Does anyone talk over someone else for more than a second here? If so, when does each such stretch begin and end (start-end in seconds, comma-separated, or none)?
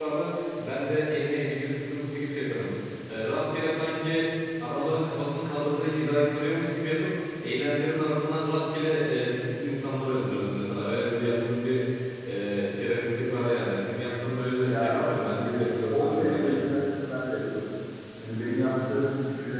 14.7-16.6